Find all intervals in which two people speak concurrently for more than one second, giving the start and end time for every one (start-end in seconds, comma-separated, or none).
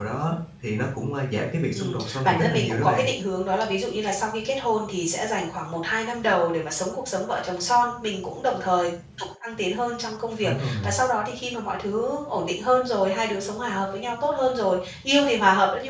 1.7-3.0